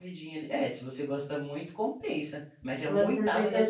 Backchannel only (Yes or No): No